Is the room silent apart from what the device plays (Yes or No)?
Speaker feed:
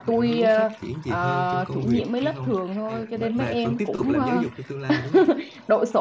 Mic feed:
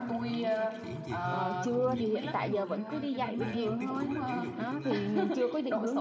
No